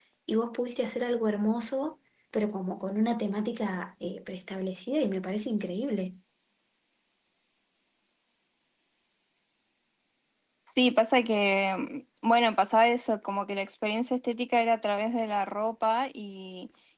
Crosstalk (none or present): none